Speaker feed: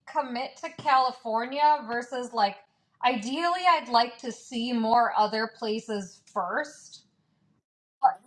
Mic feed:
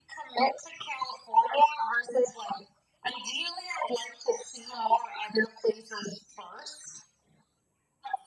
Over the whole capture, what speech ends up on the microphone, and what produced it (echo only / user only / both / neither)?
echo only